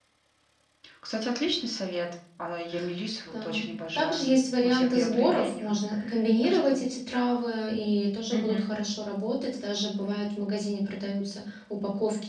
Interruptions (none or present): present